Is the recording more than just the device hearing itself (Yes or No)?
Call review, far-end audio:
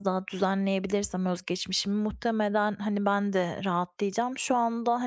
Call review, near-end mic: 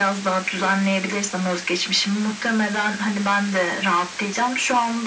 No